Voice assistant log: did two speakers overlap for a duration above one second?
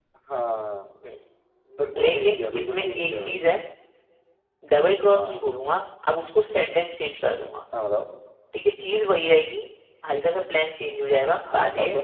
Yes, from 2.0 s

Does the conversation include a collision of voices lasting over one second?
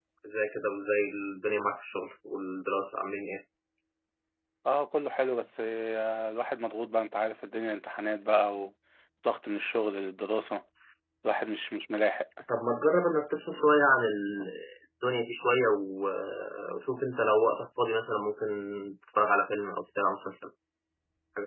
No

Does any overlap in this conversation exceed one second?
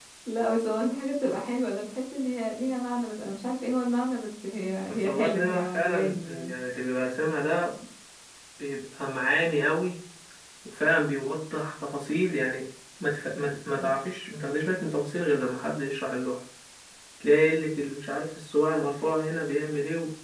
Yes, from 5.0 s

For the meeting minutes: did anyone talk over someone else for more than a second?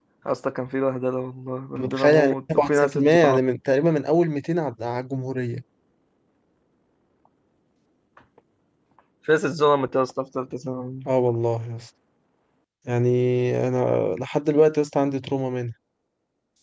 Yes, from 1.8 s

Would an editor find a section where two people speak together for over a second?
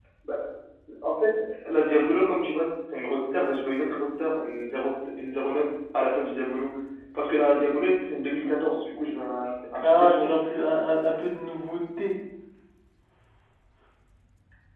No

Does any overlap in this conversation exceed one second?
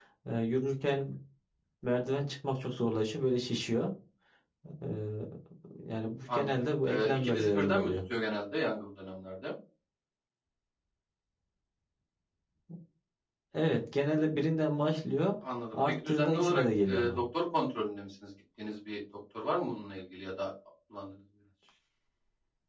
Yes, from 6.3 s

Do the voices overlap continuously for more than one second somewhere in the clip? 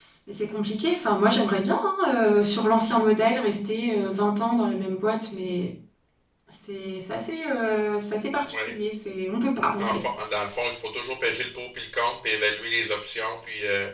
No

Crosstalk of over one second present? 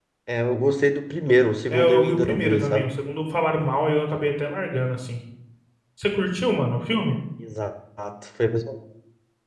Yes, from 1.7 s

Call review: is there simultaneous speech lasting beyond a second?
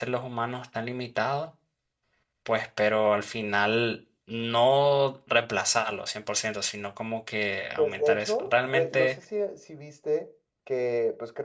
Yes, from 7.8 s

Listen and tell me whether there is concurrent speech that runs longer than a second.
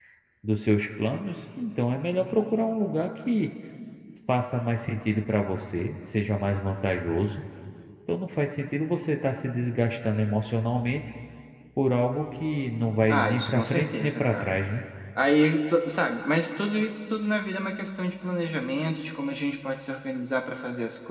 Yes, from 13.1 s

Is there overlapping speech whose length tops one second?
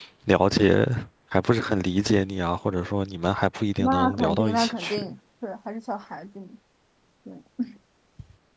Yes, from 3.8 s

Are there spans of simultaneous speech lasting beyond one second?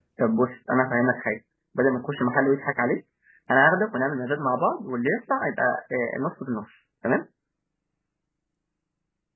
No

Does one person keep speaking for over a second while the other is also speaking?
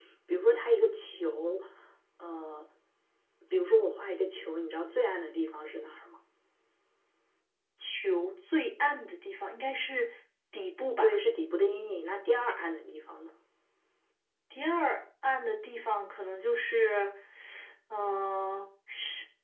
No

